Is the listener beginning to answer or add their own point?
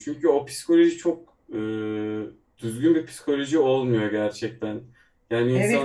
Yes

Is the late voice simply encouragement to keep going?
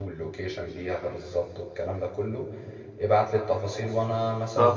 No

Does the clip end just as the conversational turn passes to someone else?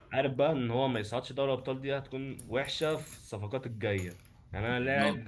No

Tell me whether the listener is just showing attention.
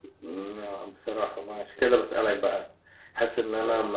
Yes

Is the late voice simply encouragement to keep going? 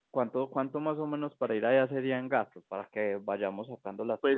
No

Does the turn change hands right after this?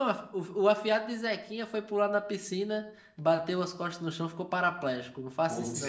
Yes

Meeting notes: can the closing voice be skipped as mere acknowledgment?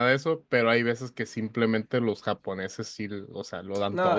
No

